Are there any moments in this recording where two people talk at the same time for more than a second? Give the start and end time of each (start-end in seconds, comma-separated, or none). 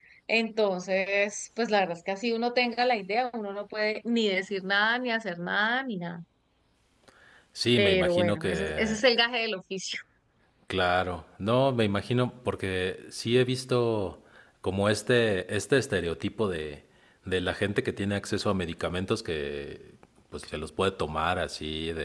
7.8-9.0